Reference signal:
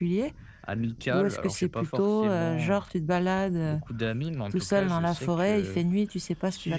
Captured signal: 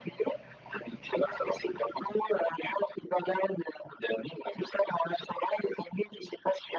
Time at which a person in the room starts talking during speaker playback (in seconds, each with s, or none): none